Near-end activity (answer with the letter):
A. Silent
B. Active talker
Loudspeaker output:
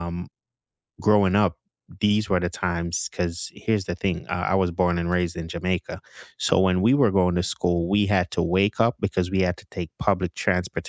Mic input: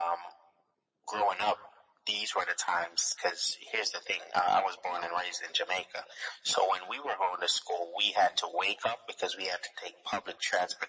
A